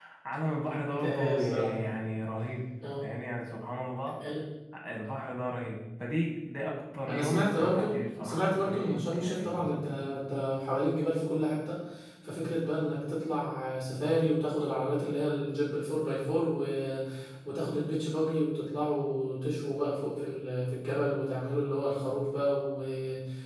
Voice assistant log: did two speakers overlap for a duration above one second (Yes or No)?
Yes